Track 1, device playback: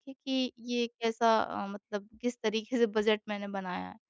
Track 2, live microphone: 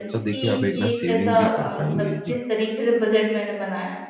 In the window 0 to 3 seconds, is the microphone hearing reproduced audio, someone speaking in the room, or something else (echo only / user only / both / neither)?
both